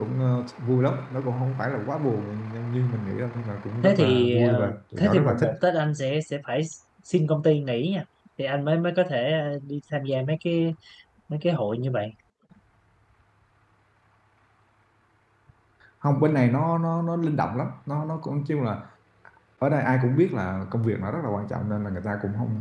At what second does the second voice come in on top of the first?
4 s

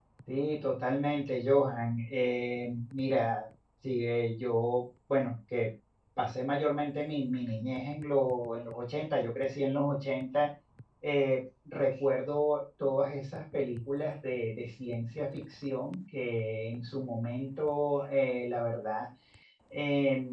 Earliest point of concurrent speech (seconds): none

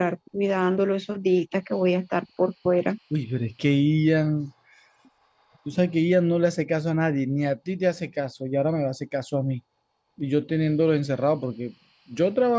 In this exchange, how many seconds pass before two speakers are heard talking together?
none

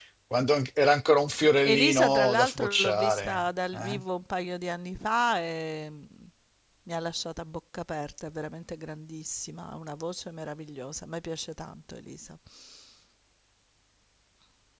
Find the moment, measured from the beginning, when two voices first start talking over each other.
2 s

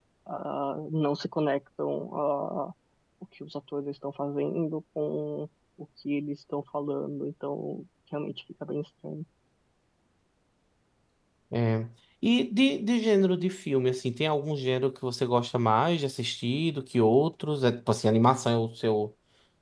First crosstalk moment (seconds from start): none

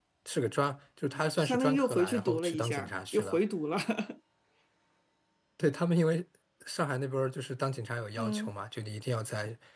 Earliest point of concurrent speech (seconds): 1 s

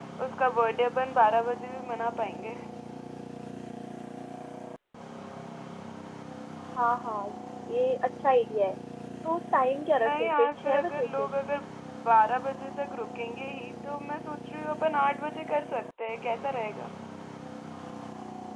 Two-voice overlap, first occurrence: 10 s

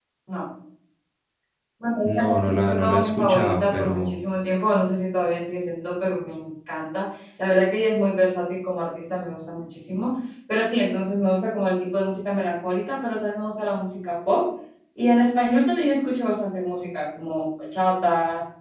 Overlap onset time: 2 s

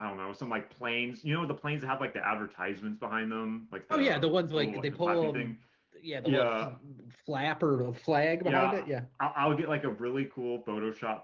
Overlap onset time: 4 s

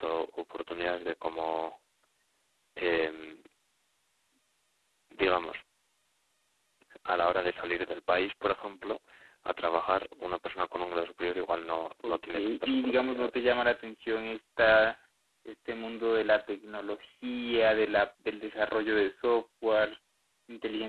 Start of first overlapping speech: 12 s

